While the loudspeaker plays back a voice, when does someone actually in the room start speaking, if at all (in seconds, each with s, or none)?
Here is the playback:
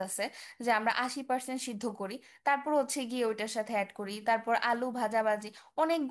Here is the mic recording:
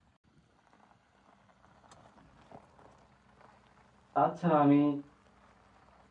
4.2 s